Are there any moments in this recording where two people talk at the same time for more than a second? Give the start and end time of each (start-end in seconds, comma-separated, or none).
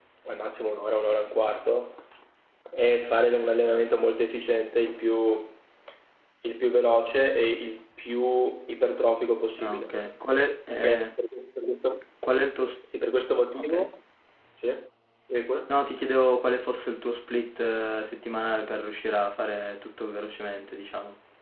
none